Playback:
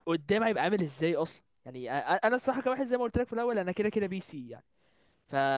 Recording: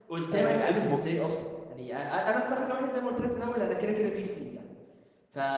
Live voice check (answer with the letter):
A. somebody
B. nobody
A